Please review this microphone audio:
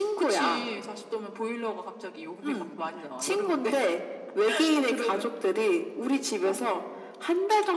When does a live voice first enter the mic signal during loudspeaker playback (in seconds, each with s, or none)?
none